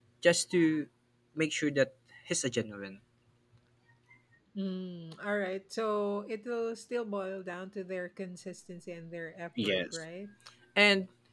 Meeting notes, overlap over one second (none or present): none